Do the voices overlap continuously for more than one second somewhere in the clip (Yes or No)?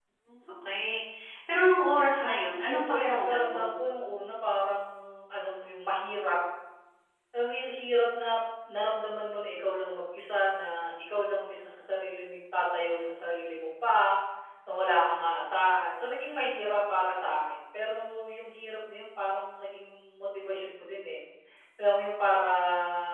Yes